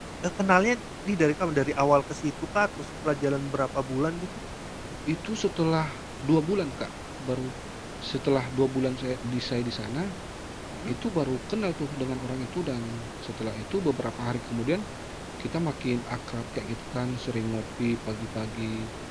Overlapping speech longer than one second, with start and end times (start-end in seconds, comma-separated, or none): none